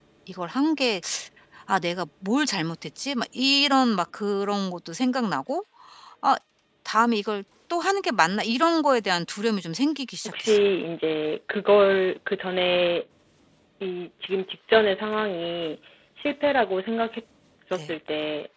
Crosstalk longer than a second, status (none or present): none